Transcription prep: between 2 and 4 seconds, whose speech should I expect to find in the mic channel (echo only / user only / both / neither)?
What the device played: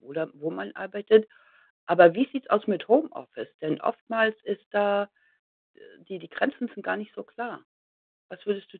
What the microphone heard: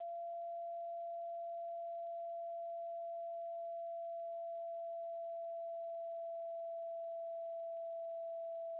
neither